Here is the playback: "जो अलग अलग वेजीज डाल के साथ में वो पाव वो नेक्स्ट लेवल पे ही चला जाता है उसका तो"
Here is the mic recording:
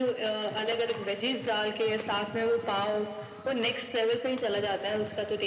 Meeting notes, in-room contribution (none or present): none